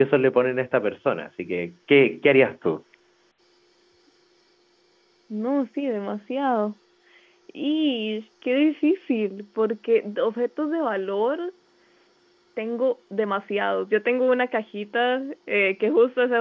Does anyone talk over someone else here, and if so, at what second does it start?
none

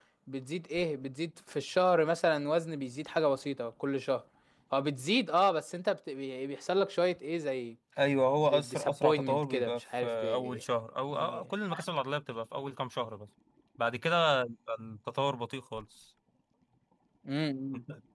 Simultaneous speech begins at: 8.4 s

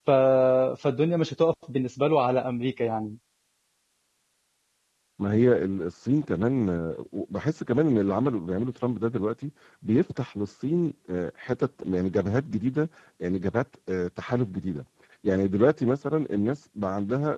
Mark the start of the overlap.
none

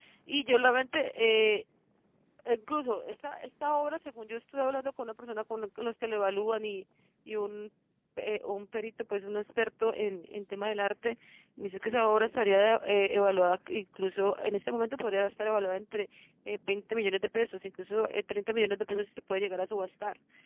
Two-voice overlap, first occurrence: none

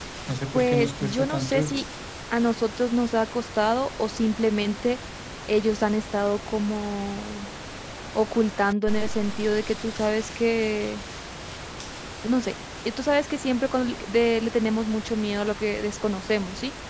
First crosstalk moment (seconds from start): 0.5 s

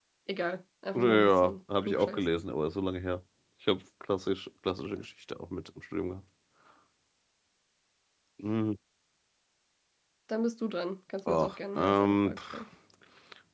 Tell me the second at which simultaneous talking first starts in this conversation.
1.0 s

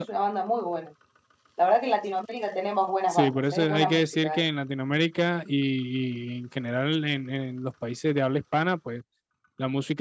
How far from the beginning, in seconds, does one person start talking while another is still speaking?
3.1 s

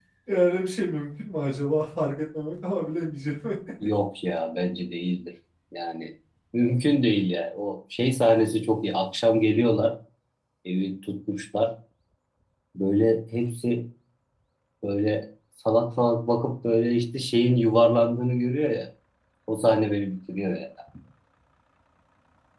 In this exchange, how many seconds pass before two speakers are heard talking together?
none

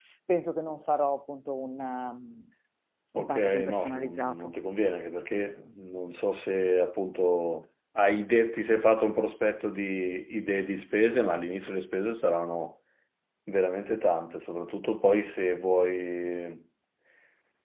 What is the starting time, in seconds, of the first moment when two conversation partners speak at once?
3.2 s

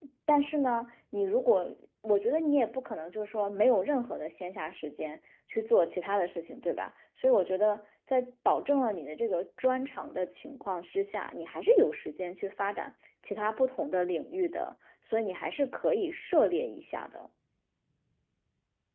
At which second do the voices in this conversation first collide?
none

